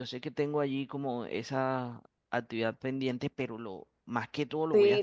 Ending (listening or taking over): taking over